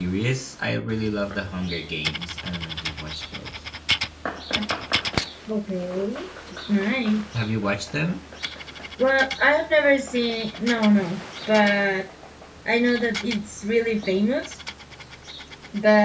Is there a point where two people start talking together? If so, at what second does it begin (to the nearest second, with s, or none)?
none